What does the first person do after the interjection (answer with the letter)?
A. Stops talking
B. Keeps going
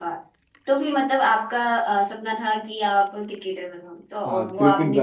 A